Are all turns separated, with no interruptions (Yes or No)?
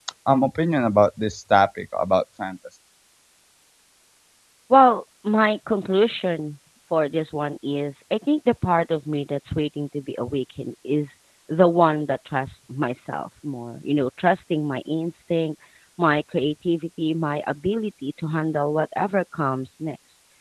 Yes